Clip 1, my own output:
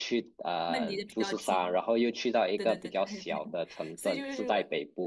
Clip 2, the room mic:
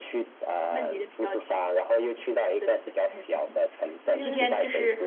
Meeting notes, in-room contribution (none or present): present